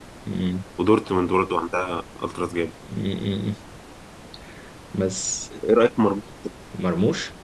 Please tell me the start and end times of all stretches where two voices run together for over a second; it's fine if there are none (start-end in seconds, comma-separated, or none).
none